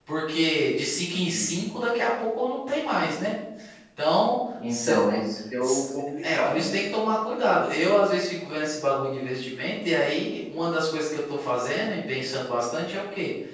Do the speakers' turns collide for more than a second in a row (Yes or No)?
No